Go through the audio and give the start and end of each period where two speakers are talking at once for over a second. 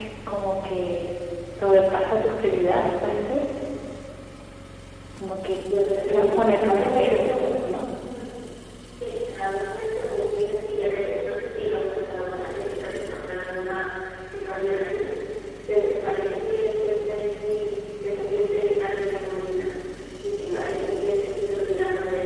6.1-7.4

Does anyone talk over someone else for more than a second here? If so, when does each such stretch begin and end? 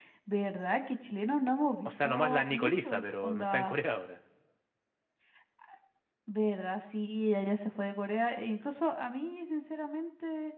1.9-3.7

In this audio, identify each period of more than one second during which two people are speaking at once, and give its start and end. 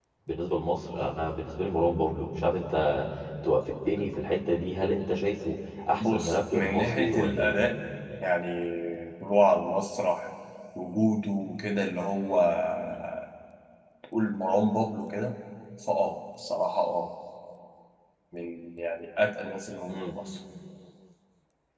6.0-7.6

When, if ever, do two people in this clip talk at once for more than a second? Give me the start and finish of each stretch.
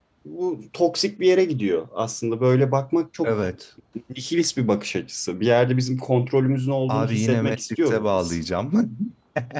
6.9-8.4

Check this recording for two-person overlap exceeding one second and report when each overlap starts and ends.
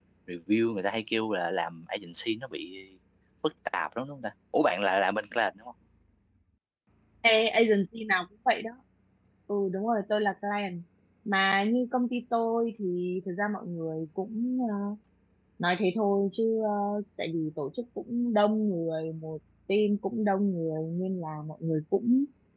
none

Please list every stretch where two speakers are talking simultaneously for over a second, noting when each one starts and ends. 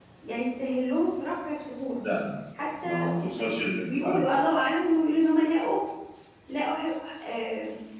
none

